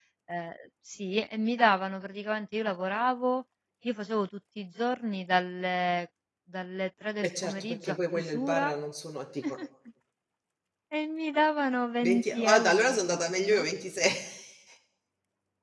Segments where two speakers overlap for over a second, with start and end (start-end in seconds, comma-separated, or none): 7.2-8.7, 12.0-13.7